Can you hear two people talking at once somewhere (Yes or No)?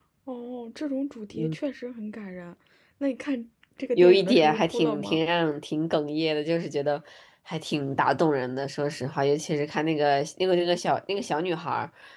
Yes